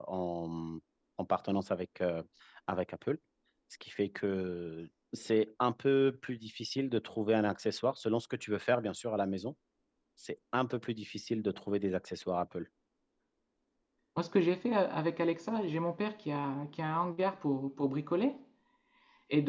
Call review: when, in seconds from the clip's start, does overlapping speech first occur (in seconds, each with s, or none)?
none